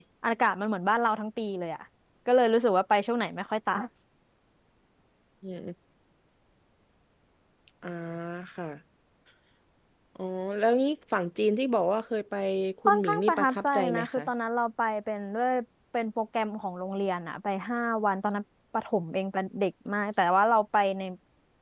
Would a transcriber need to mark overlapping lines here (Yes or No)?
Yes